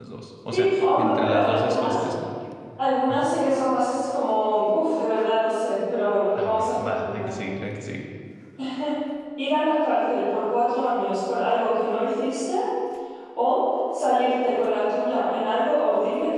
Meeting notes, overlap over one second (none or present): present